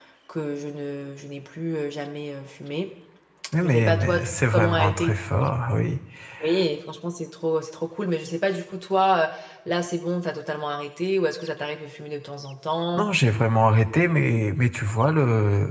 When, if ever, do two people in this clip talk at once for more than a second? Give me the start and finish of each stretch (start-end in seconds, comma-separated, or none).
3.6-5.1